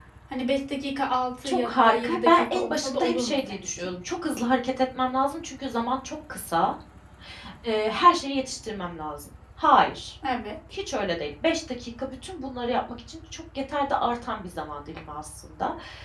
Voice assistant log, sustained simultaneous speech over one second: present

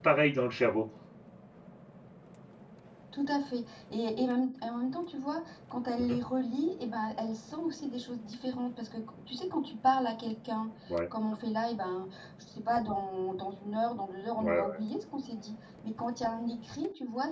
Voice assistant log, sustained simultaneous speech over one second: none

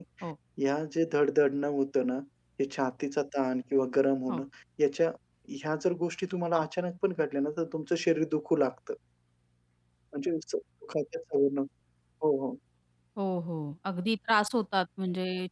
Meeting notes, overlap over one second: none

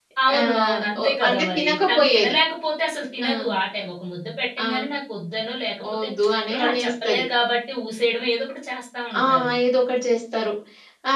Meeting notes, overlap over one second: present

